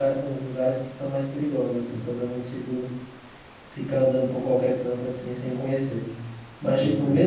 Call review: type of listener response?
listening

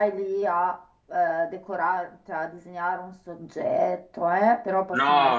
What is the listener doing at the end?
listening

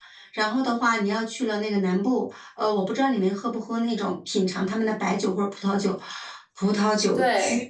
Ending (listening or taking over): listening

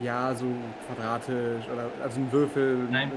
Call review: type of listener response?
listening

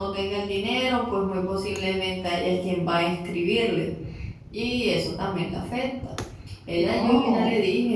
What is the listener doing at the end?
listening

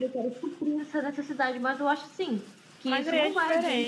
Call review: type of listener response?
taking over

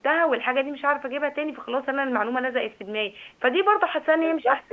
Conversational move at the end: listening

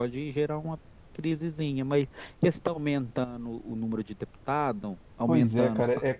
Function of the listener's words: taking over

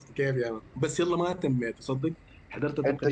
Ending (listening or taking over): listening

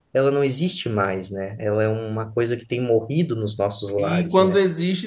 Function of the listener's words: taking over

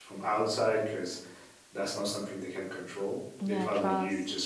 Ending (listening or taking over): listening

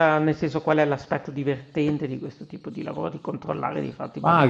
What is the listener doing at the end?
taking over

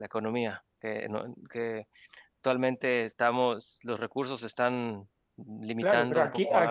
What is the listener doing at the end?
taking over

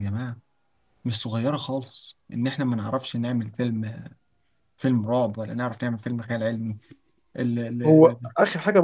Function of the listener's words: taking over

